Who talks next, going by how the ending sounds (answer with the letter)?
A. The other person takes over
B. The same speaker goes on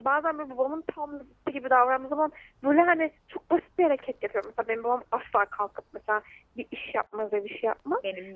B